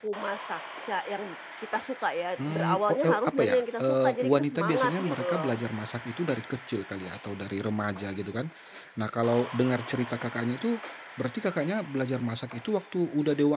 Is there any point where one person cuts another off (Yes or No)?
Yes